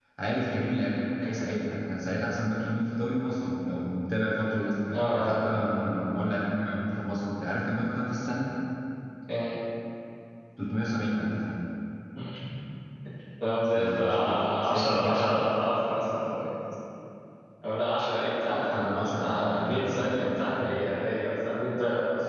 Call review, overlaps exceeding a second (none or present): present